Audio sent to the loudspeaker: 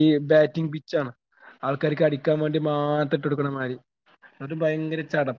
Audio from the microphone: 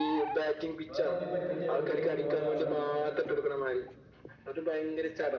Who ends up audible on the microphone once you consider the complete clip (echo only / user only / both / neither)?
both